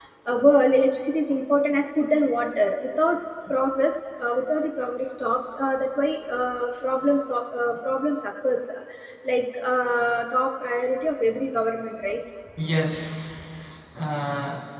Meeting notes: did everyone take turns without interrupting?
Yes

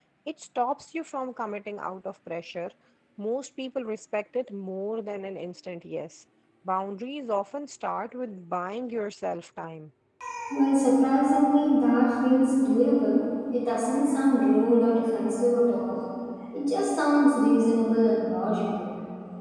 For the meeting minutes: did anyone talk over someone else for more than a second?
No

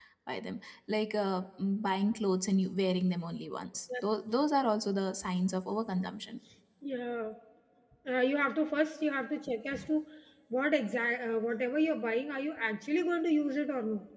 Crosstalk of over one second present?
No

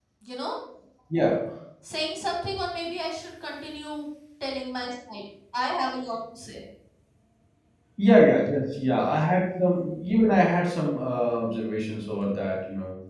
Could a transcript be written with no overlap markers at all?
Yes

